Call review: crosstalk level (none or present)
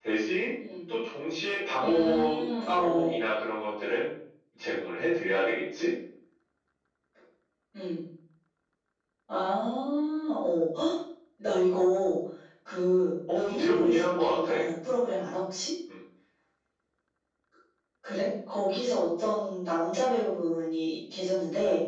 present